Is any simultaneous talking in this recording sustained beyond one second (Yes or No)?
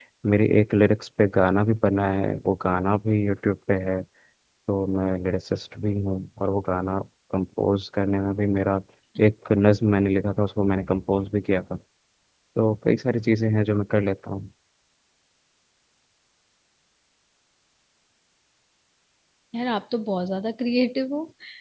No